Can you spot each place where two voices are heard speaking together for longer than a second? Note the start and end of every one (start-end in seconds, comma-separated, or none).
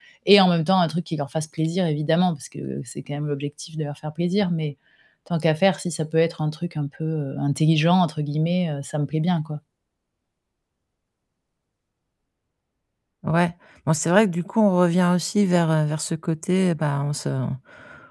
none